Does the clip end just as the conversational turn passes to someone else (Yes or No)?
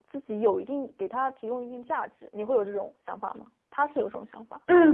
Yes